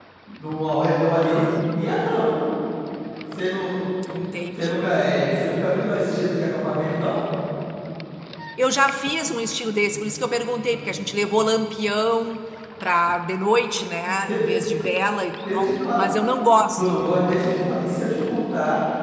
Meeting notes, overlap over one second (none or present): none